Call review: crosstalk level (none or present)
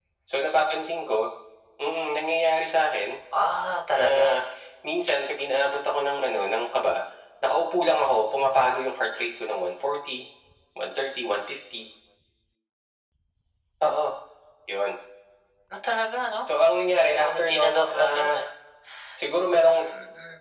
present